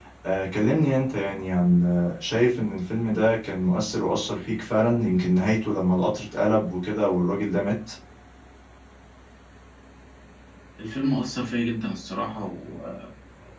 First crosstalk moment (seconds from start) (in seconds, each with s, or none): none